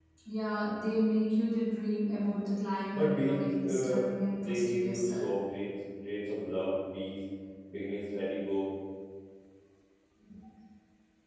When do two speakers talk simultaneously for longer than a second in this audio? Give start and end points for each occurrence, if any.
2.9-5.2

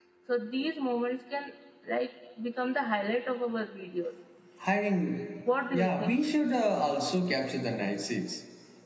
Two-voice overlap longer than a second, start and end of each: none

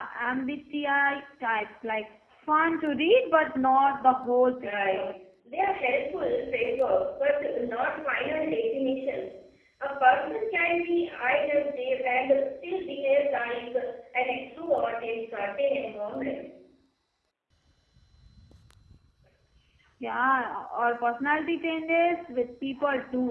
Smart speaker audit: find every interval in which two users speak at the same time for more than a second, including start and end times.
none

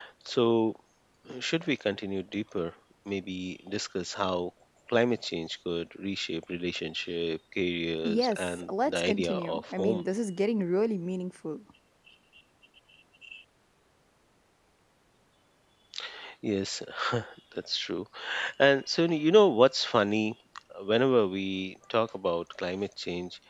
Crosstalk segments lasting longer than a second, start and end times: 8.0-10.0

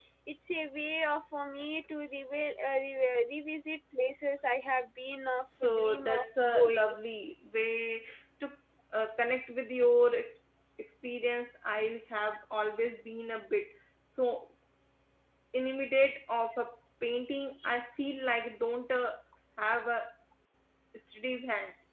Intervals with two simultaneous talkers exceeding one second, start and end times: 5.6-7.0

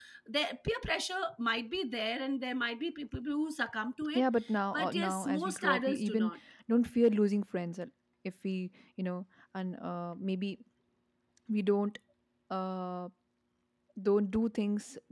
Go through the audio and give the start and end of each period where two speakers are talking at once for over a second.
4.7-6.3

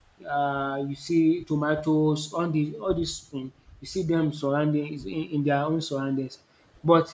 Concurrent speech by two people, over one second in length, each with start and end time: none

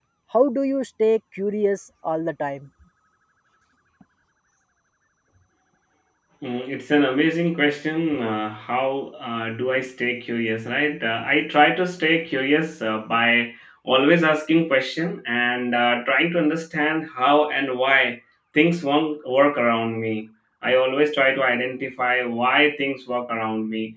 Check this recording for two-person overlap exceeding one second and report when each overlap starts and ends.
none

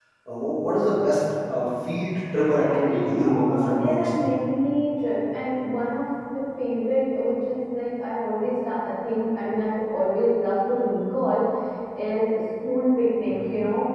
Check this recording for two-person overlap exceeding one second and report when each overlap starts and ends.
2.7-4.3

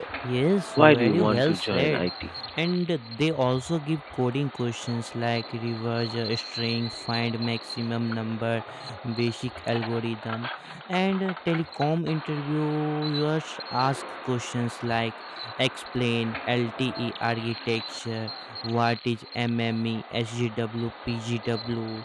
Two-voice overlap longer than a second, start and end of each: 0.8-2.1

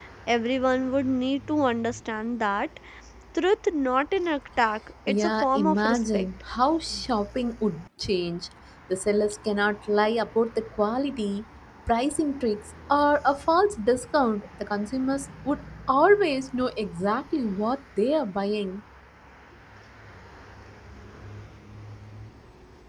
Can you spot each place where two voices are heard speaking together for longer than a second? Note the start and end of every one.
5.1-6.3

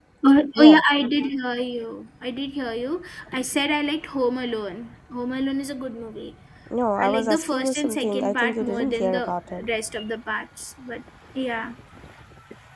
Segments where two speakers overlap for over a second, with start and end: 7.0-9.7

